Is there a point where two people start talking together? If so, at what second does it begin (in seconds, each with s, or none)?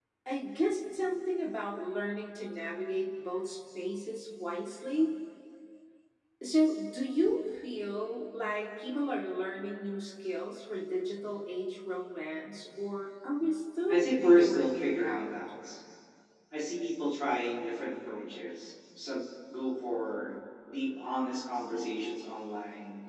13.9 s